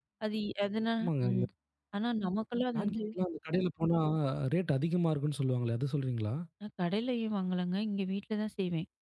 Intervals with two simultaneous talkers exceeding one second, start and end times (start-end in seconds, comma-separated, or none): none